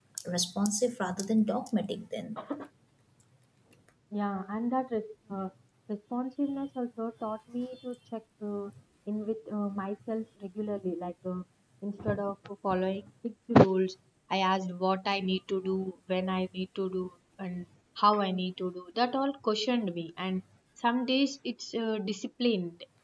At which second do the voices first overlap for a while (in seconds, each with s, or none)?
none